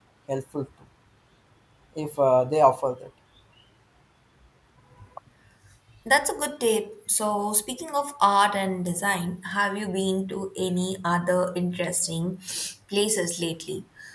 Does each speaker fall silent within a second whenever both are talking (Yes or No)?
Yes